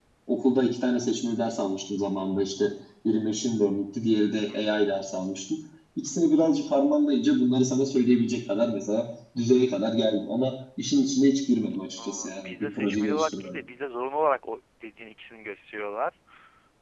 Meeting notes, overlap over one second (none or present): present